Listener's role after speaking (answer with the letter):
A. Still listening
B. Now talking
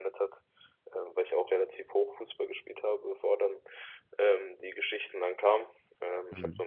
A